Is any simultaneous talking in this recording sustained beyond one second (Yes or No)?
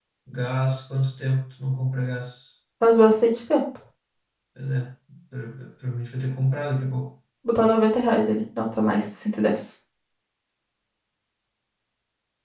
No